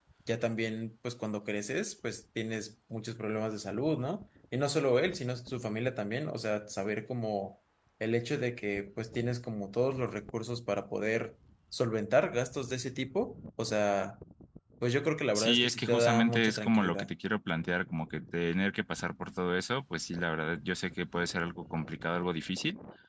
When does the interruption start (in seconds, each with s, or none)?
15.4 s